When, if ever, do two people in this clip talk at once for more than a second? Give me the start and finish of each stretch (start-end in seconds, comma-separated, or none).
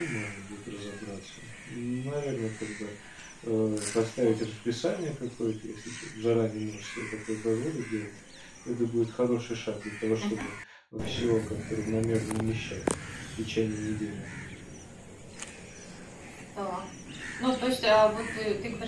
none